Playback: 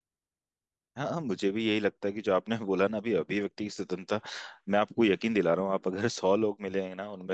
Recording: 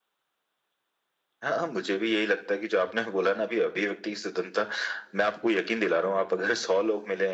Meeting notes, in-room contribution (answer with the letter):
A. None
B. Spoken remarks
A